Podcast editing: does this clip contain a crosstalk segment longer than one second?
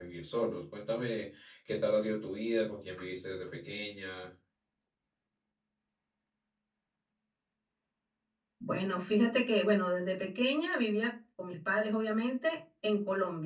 No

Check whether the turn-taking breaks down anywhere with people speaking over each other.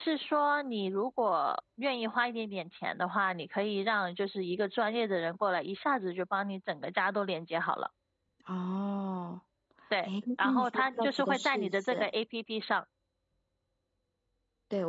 Yes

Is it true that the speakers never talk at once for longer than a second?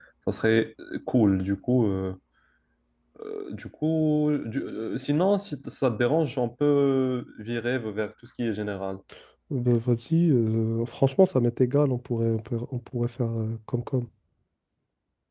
Yes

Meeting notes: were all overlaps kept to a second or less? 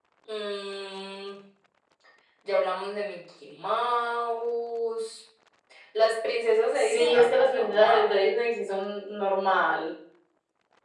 No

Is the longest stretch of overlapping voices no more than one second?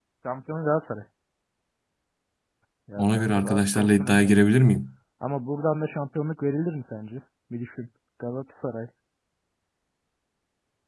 No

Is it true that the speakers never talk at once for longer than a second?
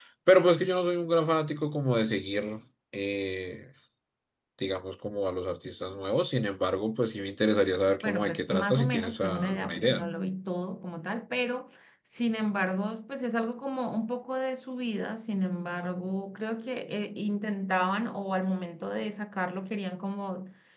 No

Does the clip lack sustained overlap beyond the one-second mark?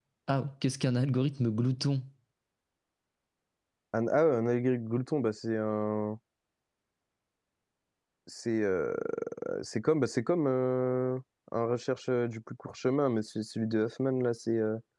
Yes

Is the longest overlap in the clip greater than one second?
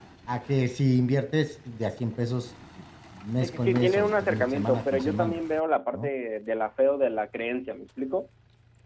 Yes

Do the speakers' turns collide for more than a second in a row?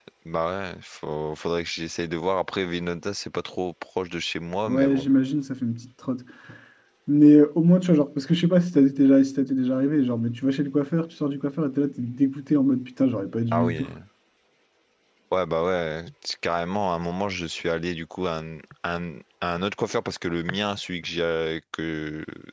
No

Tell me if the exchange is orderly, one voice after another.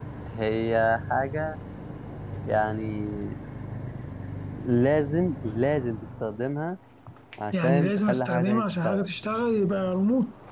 No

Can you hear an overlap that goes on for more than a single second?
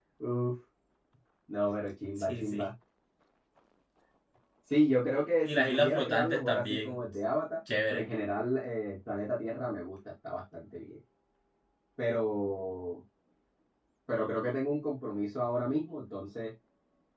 Yes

